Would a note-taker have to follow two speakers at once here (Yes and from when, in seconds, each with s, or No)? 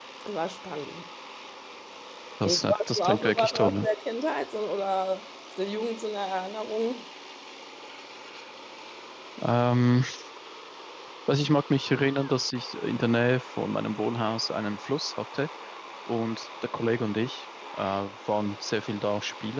Yes, from 2.4 s